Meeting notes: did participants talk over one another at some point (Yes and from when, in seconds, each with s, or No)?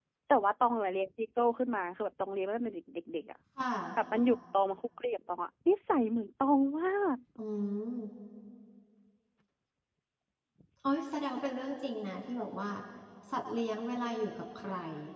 No